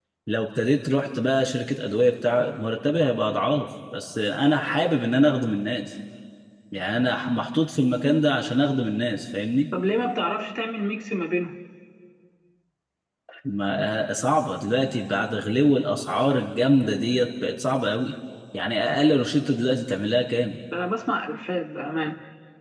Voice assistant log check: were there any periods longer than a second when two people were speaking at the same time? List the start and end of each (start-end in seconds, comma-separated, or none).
none